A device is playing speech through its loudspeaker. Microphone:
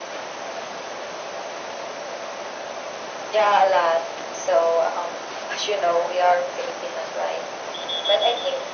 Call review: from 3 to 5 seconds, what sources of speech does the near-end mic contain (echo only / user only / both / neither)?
echo only